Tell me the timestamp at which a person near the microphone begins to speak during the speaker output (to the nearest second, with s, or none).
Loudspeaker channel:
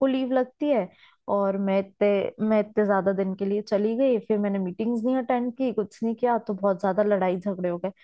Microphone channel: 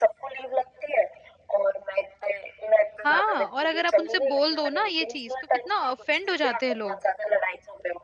3 s